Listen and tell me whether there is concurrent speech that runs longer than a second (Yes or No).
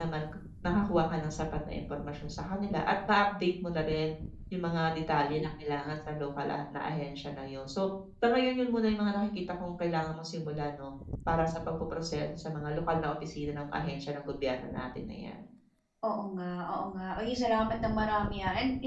No